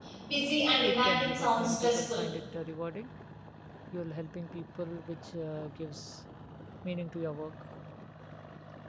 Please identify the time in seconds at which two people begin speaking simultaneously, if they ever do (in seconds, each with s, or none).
0.8 s